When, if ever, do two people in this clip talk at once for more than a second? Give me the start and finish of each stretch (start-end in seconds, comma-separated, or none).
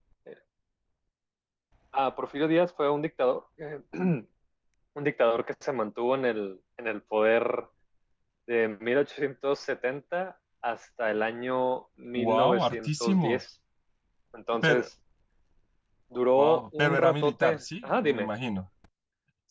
12.2-13.4, 16.3-18.3